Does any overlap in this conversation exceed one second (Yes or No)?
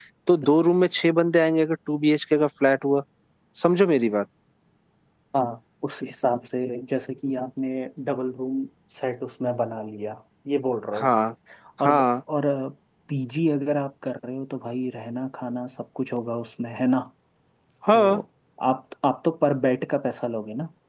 No